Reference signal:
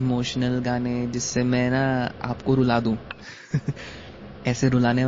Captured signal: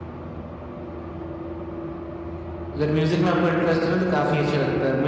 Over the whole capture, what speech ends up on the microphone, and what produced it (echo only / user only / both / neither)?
user only